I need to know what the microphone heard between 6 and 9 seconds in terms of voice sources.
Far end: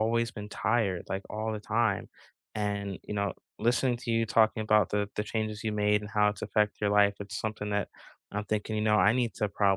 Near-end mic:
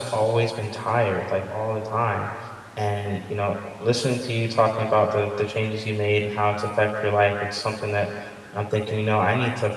echo only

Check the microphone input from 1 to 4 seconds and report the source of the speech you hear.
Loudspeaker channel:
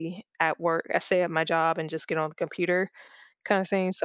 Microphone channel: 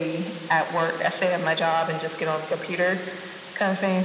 echo only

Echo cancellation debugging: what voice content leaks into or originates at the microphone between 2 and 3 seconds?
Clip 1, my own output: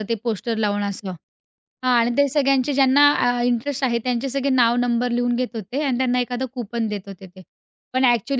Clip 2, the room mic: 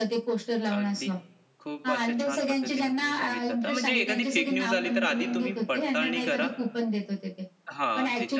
both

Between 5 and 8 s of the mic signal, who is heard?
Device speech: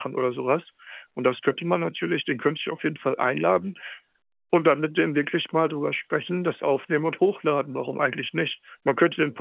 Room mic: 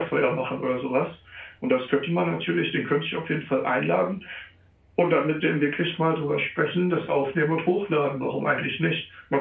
echo only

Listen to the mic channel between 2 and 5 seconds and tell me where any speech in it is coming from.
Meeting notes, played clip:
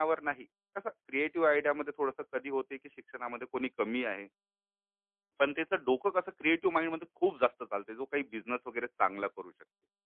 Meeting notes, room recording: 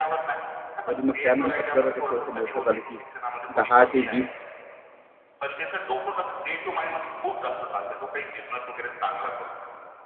both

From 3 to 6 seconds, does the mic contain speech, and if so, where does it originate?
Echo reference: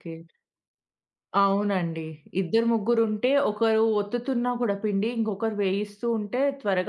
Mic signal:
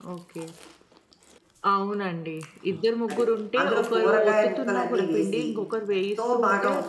both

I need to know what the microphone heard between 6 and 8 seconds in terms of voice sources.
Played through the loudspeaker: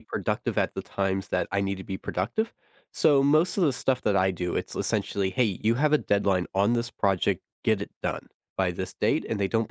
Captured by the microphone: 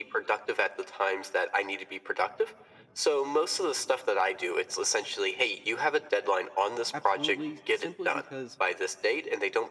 both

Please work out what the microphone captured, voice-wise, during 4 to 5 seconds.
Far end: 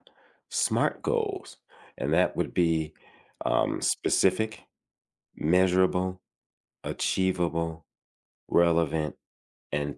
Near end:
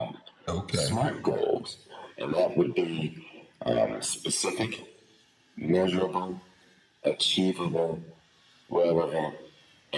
echo only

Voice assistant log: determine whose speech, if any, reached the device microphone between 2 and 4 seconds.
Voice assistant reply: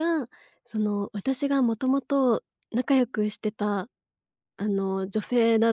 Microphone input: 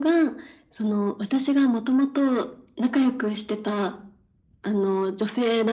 echo only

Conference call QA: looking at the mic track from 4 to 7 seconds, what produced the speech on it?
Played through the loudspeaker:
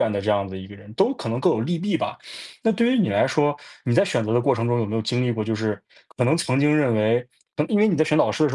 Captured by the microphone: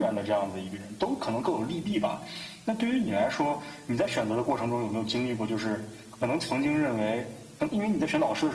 echo only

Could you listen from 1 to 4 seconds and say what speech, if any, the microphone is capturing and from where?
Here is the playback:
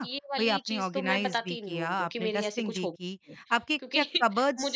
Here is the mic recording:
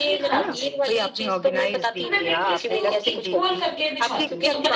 both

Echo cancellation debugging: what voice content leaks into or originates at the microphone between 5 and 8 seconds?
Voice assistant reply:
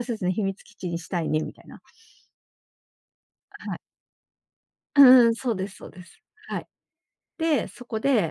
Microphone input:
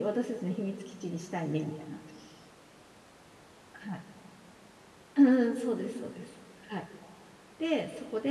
echo only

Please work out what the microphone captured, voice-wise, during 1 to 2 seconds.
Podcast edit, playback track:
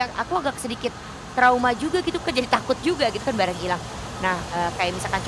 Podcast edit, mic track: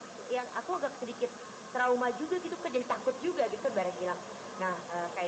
echo only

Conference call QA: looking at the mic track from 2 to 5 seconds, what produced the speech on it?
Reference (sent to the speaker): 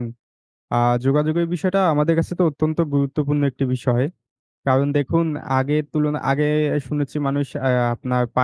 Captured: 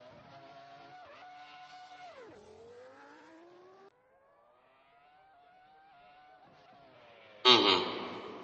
neither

